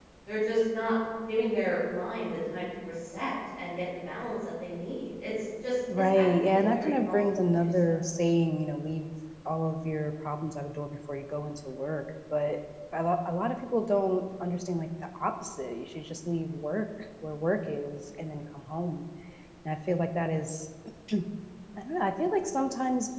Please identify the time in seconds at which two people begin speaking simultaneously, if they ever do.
6 s

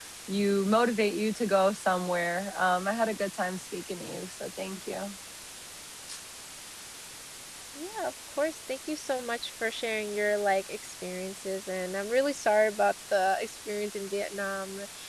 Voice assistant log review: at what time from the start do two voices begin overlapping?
none

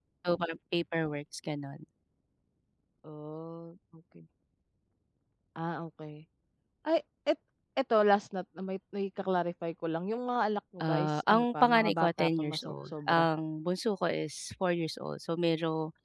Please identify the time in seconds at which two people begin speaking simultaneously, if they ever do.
11 s

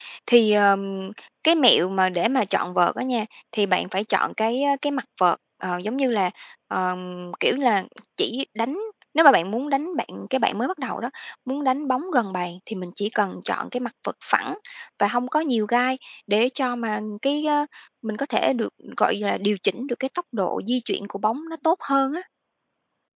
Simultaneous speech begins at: none

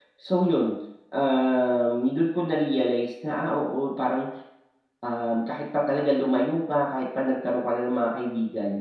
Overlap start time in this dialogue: none

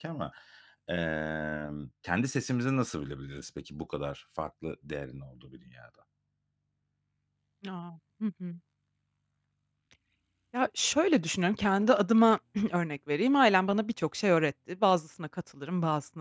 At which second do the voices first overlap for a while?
none

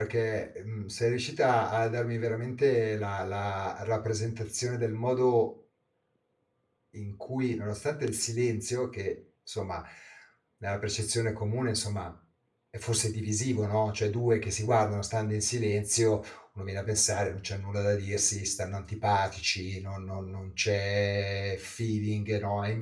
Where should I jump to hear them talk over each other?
none

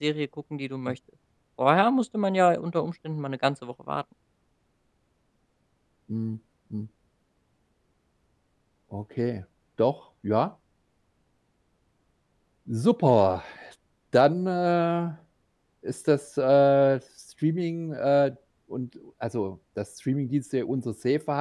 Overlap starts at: none

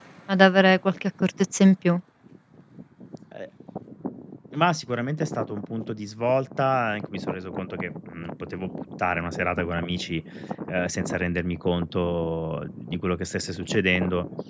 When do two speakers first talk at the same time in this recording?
none

